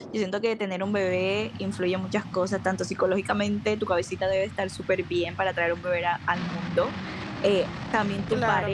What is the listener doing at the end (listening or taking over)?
listening